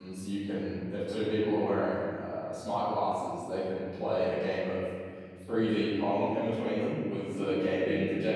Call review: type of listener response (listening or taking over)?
listening